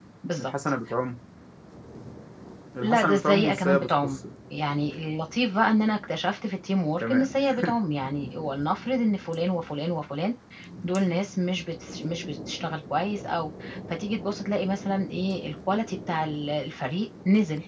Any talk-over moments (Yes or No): Yes